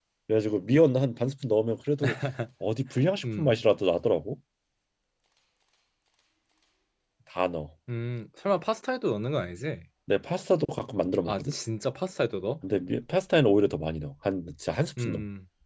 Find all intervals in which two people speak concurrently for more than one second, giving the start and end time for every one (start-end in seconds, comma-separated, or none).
none